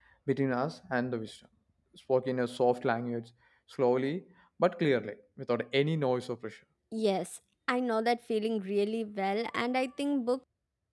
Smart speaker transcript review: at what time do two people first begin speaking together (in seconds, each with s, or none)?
none